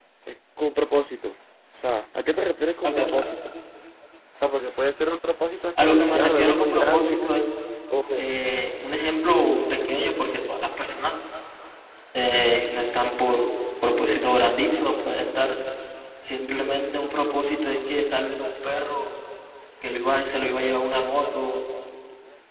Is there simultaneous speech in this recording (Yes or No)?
Yes